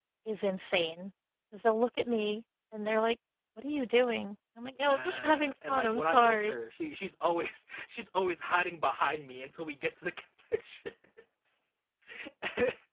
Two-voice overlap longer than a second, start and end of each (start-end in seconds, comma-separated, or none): 4.8-6.6